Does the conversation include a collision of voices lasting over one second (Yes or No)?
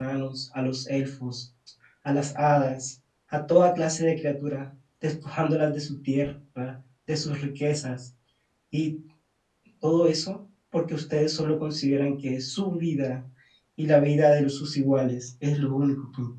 No